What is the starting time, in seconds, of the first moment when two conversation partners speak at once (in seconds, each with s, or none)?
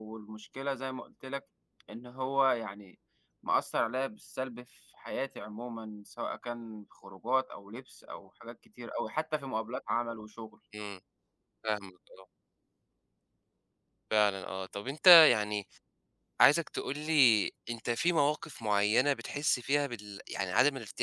none